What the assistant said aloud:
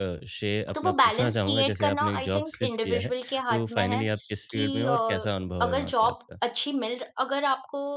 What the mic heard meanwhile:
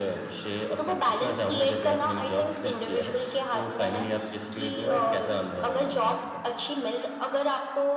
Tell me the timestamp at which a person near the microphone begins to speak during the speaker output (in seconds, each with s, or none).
none